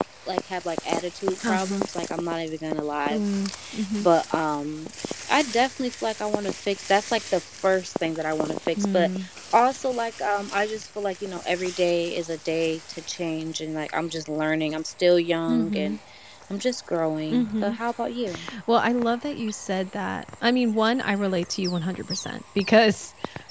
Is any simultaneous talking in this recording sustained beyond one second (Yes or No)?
No